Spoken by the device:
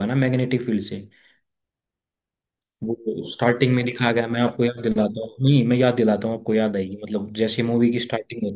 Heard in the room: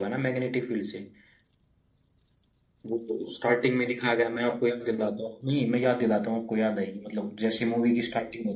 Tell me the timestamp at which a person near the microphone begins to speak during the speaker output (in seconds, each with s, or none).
none